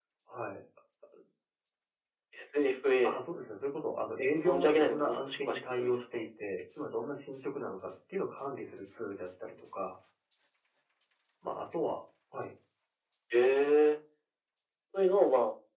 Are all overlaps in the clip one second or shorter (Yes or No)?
No